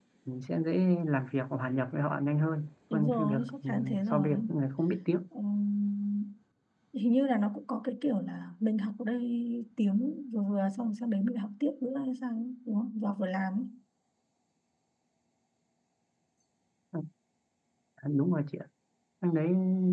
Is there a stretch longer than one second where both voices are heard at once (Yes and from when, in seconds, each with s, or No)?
Yes, from 2.9 s